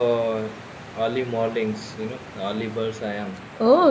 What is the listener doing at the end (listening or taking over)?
taking over